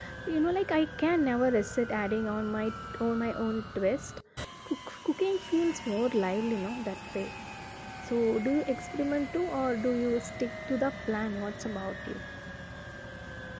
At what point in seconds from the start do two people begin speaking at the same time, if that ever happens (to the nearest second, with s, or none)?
none